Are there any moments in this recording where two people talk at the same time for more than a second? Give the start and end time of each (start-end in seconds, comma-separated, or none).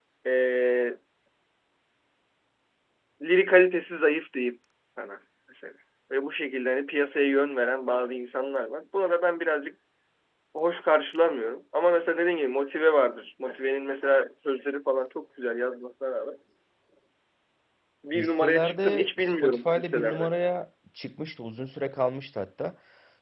18.1-20.3